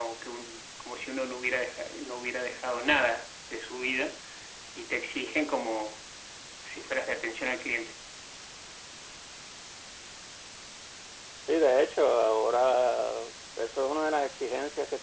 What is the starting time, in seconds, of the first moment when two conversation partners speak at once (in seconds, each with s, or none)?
none